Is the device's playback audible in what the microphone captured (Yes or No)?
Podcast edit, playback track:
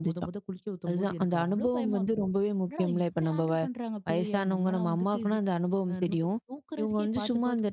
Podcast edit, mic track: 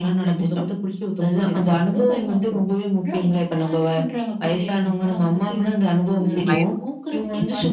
Yes